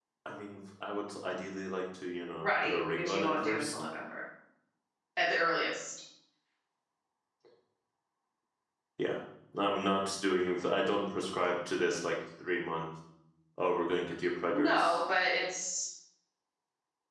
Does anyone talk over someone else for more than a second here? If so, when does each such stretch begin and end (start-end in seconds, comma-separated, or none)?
2.3-3.7